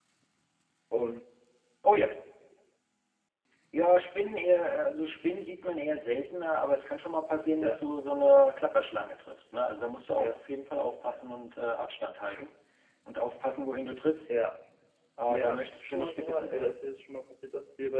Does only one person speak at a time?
No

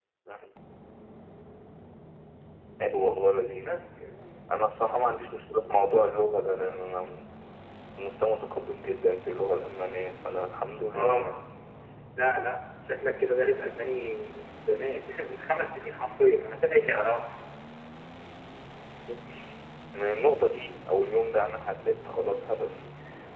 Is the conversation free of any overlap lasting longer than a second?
Yes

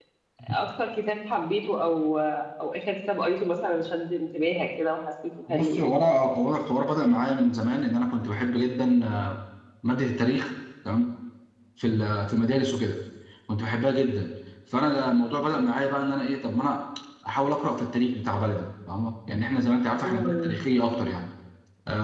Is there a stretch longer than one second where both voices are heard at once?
No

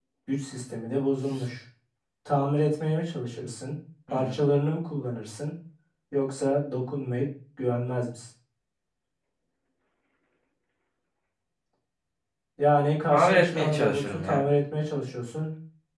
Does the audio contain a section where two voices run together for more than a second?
Yes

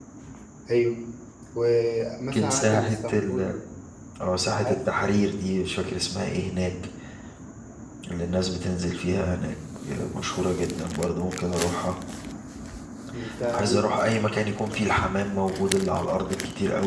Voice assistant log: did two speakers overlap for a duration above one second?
Yes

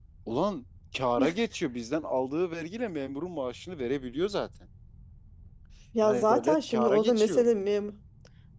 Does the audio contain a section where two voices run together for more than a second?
Yes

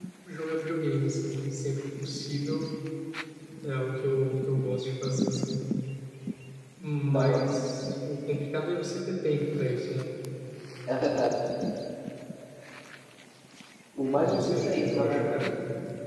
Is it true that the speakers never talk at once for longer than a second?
No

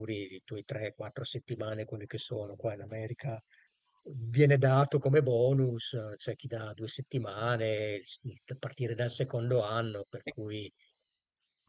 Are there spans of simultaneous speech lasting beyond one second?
No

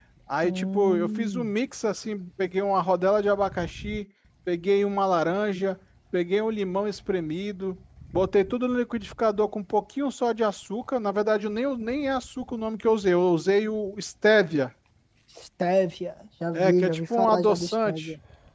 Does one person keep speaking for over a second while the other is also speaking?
Yes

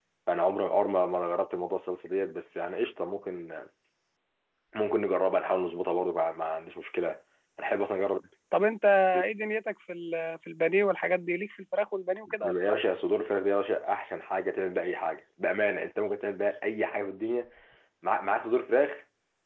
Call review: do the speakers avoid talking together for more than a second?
Yes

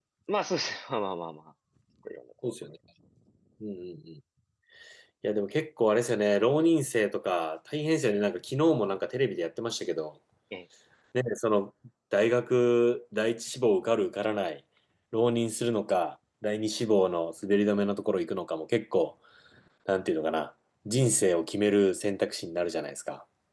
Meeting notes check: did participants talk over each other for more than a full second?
No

